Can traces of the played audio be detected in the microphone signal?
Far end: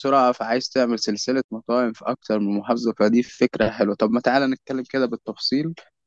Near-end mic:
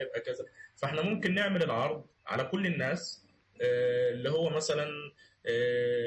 No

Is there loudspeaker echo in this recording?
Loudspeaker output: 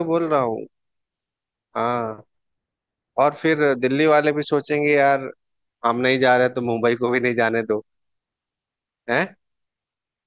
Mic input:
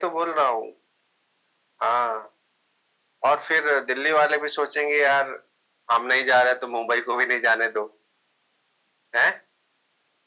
Yes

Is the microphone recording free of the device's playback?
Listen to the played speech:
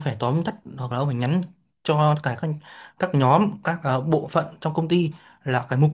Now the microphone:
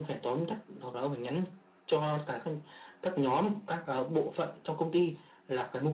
No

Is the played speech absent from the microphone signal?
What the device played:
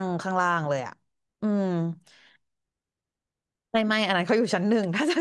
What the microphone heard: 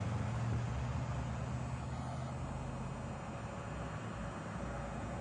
Yes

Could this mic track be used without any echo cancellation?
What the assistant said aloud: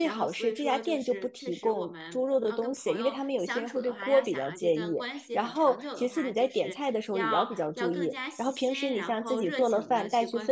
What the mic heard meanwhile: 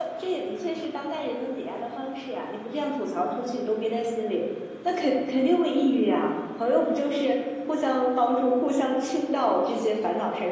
Yes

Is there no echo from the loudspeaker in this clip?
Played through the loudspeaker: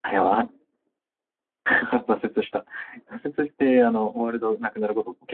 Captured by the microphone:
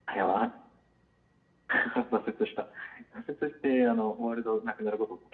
No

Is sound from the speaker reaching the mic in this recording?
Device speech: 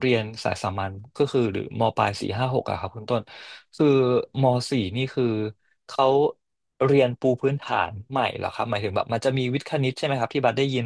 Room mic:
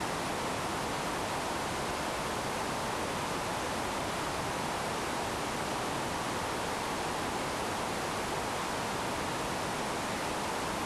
No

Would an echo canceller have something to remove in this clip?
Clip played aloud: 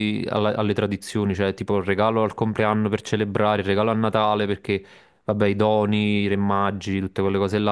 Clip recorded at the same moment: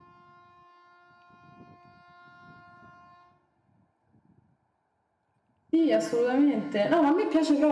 No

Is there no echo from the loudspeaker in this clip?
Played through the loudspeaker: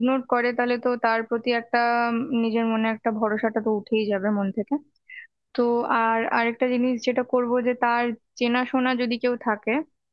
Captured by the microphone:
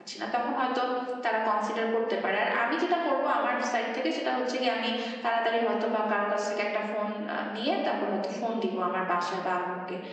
Yes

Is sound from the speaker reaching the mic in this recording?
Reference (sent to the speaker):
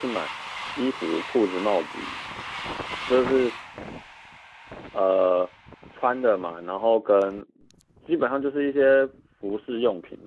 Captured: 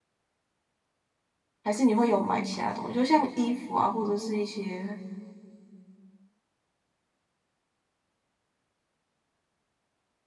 No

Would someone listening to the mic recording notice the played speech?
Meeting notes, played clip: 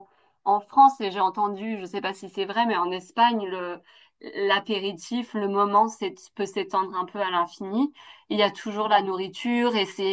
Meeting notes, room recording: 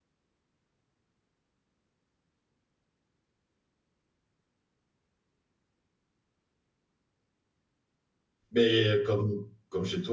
No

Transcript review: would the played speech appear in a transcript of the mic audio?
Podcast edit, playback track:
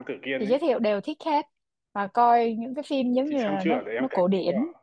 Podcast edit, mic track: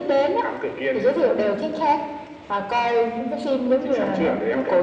Yes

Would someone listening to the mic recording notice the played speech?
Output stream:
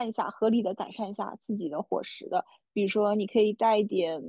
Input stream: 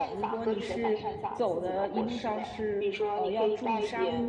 Yes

